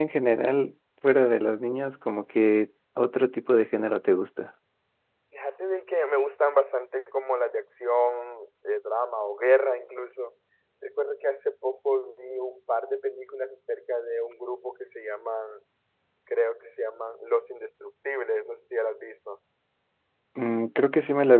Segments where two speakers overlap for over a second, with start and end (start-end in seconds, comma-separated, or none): none